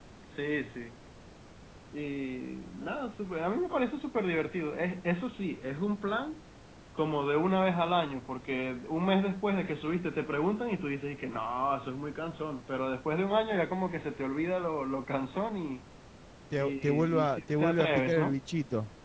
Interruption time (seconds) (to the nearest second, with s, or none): 17 s